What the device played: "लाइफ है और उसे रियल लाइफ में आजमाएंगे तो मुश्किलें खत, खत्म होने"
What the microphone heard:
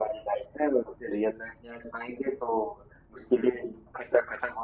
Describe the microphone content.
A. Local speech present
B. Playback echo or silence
B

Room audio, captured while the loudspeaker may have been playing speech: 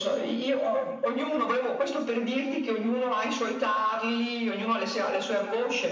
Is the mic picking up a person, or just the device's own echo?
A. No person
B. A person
A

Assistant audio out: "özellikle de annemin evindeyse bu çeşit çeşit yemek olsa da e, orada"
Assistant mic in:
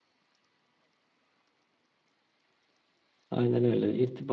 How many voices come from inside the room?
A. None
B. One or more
B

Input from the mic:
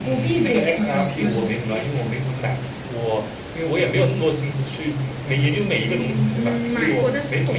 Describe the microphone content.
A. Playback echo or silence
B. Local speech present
A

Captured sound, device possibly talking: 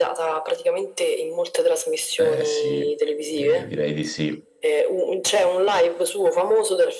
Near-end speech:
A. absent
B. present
B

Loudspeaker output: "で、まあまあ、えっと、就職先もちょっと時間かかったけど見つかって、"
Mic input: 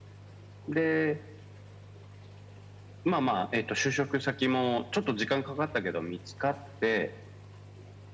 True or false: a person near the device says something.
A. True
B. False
B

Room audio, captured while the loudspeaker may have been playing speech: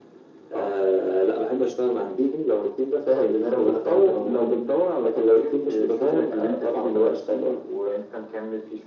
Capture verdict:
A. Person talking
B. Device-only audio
B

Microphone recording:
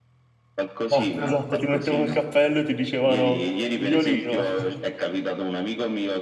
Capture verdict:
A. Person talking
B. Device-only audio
A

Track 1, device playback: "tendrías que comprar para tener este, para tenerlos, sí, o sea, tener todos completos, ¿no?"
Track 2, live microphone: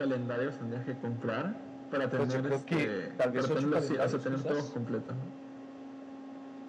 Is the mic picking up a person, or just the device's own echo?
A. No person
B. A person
B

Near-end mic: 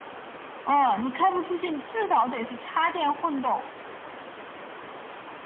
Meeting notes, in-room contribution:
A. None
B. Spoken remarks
A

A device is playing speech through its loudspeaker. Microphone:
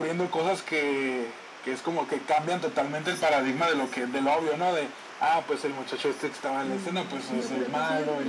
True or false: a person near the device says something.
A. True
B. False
A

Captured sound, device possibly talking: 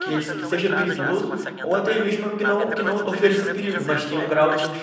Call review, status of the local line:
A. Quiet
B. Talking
B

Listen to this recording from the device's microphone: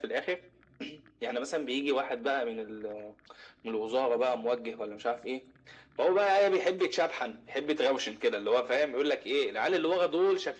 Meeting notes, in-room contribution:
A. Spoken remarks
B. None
B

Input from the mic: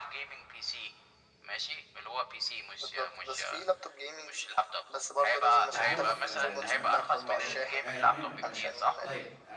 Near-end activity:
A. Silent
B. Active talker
B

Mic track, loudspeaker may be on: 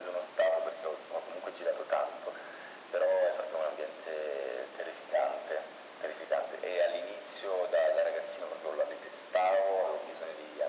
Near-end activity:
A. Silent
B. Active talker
A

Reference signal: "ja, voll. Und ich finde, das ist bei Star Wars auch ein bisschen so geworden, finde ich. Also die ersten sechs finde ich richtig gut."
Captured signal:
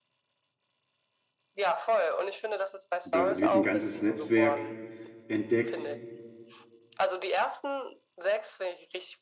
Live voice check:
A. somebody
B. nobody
A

